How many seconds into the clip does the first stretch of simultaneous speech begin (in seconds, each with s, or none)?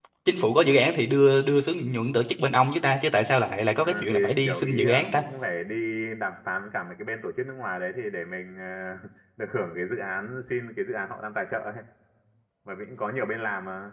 3.8 s